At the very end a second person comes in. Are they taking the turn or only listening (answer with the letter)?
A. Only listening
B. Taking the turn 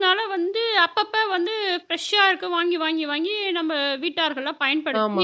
B